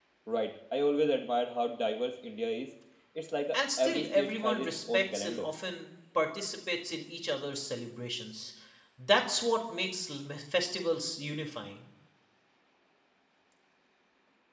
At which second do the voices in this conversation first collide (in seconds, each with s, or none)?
3.5 s